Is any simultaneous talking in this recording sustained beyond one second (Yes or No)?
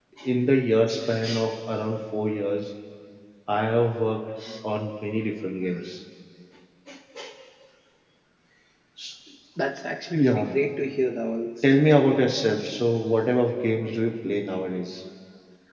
No